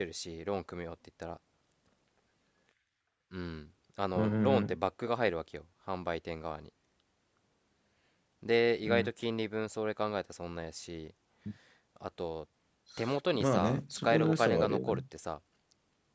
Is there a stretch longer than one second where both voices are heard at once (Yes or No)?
Yes